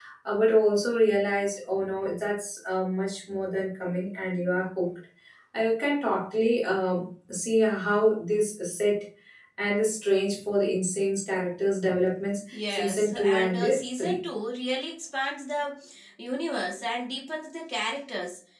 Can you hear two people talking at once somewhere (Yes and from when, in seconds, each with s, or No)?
Yes, from 12.5 s